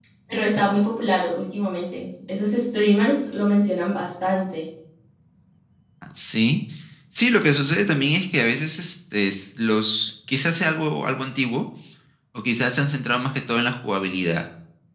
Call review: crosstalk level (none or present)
none